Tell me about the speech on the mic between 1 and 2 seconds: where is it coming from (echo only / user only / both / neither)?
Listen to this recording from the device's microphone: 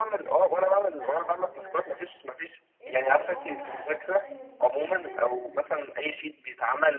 both